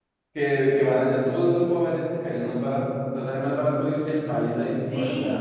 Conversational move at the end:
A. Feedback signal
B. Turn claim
B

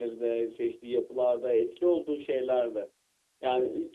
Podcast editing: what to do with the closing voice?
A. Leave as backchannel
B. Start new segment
A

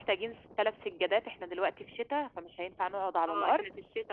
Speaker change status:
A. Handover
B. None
A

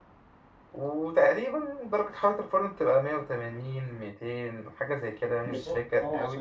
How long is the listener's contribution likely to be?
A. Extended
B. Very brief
A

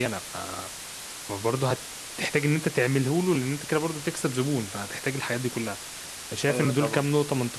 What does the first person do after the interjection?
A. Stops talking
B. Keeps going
B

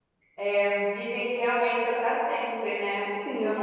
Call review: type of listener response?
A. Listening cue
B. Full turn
A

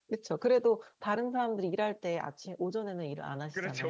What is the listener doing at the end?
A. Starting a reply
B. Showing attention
A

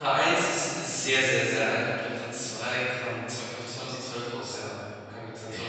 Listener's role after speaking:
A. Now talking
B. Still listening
A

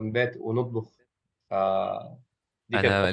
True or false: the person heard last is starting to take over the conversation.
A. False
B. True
B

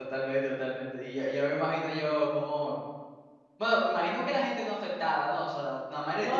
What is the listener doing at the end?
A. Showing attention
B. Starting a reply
B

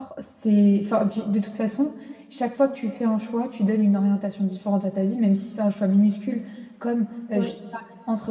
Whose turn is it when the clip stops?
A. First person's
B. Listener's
A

